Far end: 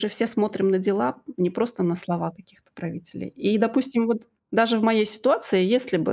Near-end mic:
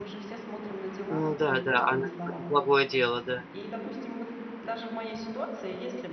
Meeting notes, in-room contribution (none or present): present